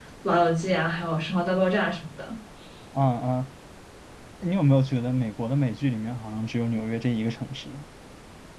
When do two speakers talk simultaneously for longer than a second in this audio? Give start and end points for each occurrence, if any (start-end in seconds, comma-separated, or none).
none